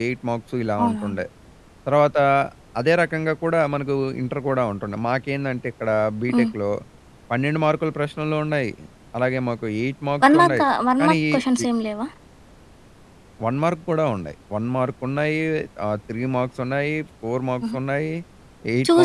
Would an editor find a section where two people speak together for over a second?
No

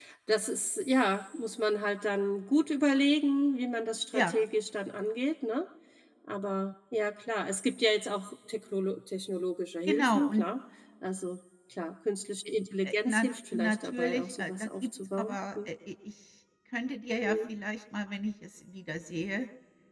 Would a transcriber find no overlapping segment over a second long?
No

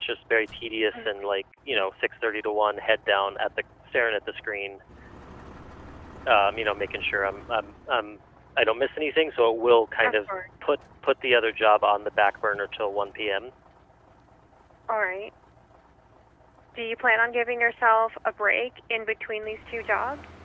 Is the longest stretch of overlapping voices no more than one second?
Yes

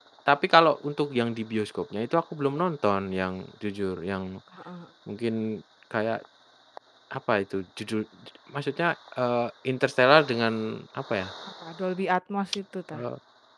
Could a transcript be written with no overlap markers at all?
Yes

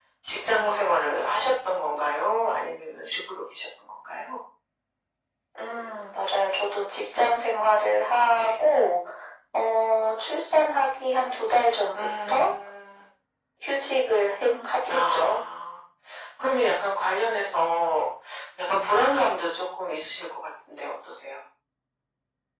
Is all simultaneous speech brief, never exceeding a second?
Yes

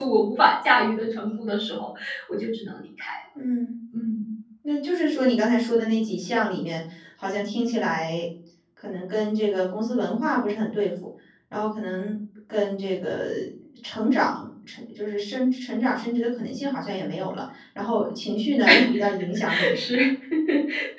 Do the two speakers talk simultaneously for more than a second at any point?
No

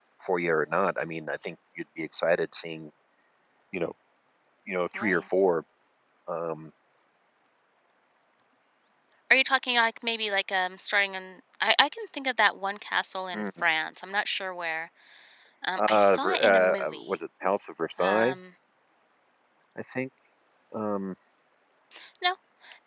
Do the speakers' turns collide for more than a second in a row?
Yes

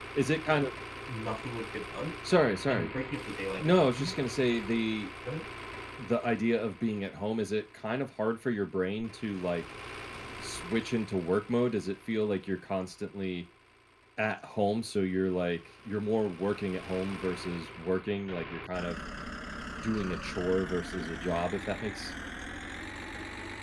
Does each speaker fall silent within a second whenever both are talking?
Yes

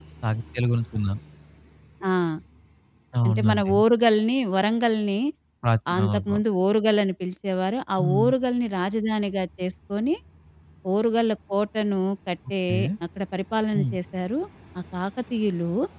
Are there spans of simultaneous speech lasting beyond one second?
No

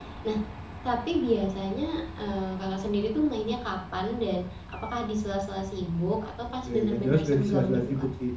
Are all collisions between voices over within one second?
No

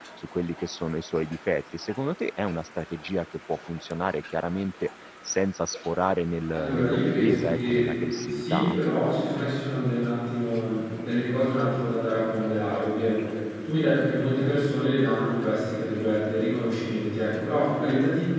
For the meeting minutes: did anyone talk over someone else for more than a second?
Yes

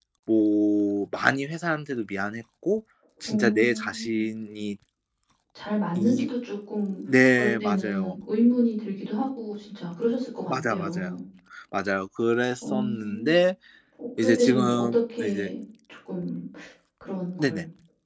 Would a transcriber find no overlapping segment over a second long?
No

